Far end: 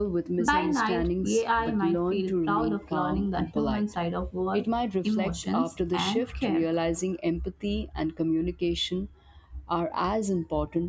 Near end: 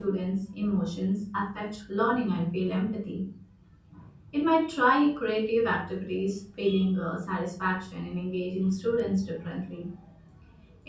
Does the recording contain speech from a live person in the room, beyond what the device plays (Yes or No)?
Yes